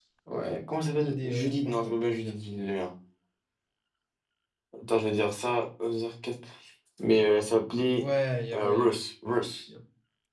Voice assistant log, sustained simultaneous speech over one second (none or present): present